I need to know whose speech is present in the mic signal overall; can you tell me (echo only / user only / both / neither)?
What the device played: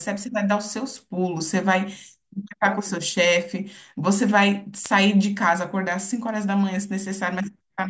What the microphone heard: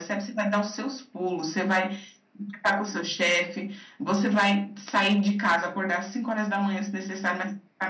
echo only